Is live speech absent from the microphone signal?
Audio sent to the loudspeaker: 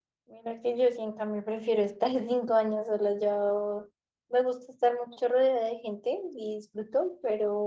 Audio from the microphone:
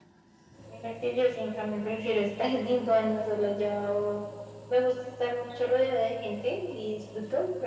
Yes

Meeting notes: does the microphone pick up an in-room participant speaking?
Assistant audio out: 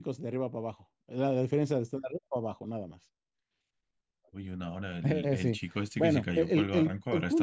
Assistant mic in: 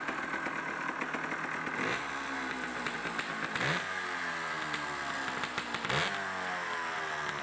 No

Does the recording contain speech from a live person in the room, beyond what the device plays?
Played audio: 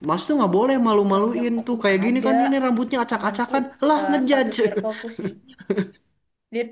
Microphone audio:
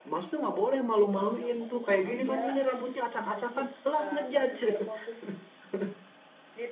No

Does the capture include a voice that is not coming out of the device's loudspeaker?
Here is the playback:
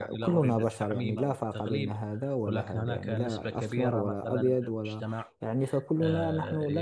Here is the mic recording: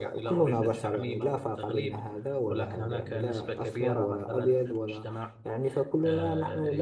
No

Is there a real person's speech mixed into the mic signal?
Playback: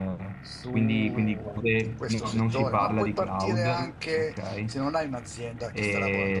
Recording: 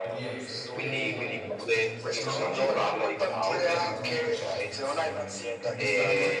Yes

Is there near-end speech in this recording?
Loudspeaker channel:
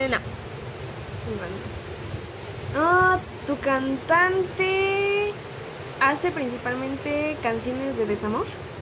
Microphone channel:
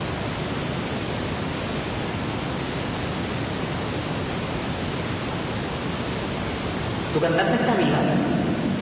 Yes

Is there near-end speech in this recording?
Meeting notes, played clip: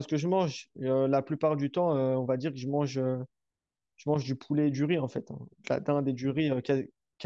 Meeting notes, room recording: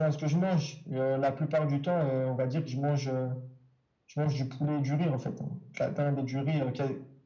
No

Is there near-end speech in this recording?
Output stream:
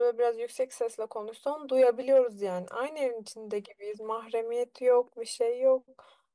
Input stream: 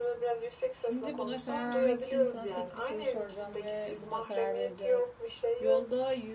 Yes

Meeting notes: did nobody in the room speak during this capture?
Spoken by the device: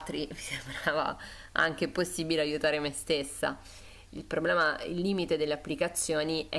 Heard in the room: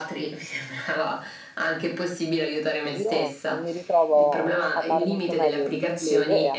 No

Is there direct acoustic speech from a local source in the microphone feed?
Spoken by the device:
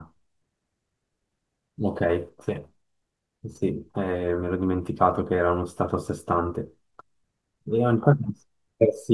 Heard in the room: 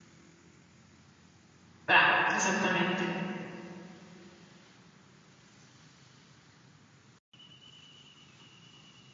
Yes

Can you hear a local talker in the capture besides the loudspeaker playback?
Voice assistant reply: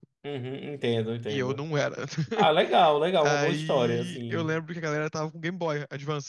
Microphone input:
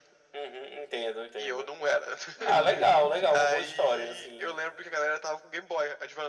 Yes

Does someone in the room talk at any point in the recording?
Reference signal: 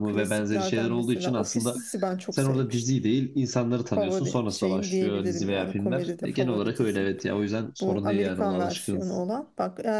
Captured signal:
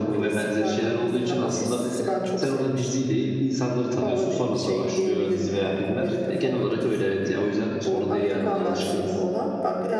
No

